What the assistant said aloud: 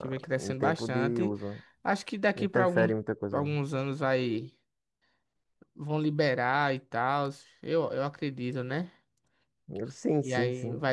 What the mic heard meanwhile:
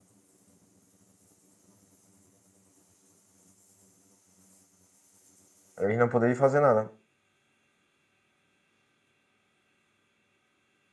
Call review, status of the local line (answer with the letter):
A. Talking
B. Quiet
A